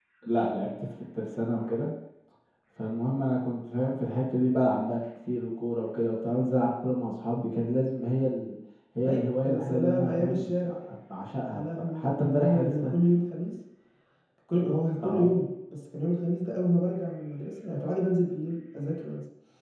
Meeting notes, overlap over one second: present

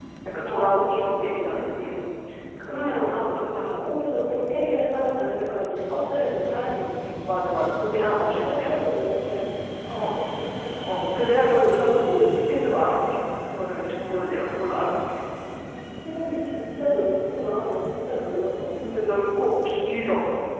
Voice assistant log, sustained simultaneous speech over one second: present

